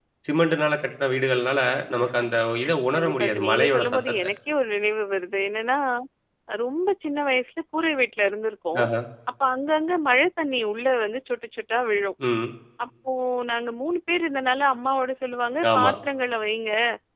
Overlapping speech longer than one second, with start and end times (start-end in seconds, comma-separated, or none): 2.9-4.2